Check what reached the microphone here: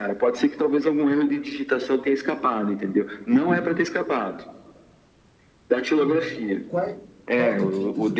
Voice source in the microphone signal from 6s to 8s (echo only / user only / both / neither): both